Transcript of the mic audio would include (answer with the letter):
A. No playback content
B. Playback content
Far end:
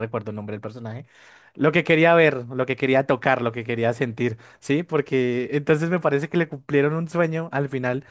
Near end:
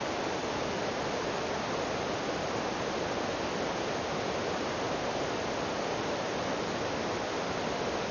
A